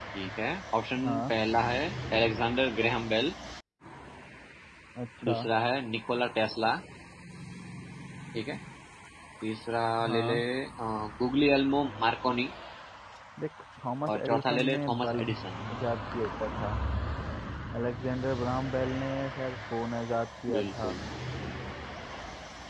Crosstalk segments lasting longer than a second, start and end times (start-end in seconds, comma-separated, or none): 14.1-15.3